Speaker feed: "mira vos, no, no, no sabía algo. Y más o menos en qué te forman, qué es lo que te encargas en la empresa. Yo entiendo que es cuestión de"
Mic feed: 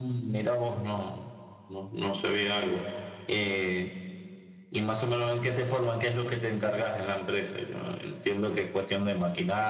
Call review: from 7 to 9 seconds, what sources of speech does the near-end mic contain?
echo only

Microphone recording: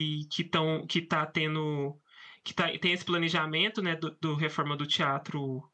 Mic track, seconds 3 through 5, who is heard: user only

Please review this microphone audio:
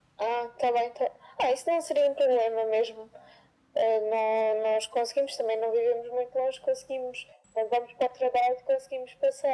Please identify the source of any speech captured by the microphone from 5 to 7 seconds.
echo only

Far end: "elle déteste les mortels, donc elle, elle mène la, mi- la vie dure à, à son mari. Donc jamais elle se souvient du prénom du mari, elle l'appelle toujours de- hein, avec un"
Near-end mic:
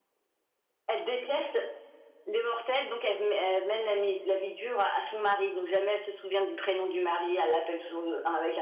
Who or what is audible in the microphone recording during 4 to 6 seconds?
echo only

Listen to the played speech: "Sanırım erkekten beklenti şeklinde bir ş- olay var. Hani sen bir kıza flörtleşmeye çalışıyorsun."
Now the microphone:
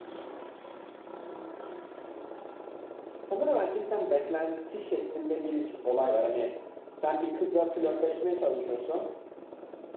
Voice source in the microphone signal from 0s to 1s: neither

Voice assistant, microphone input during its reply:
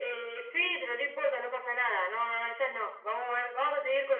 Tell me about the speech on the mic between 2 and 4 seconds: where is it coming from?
echo only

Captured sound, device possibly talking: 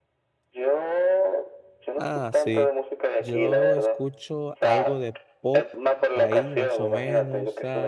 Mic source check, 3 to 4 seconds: both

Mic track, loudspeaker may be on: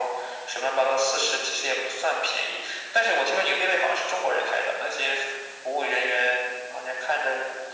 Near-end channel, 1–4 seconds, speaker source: echo only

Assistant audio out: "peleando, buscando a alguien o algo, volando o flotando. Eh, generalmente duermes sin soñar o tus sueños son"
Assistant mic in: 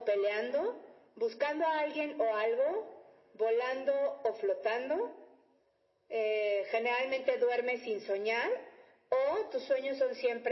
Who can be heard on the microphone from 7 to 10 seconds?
echo only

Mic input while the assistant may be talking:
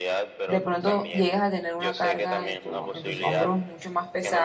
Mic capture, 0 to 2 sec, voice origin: both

